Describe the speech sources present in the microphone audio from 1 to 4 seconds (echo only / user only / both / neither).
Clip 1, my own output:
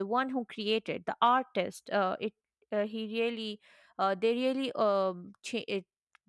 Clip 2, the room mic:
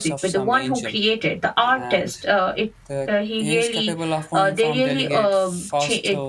both